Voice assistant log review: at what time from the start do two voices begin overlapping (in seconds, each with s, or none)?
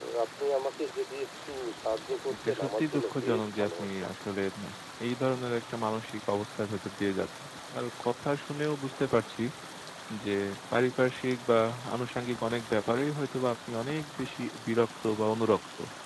2.4 s